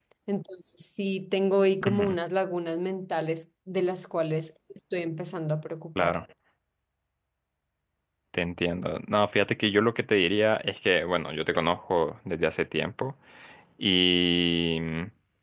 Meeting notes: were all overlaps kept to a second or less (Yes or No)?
Yes